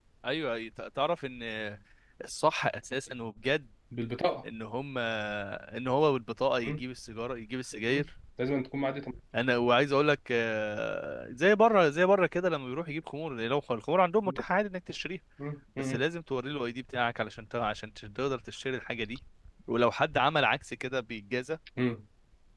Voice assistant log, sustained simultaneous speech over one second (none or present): none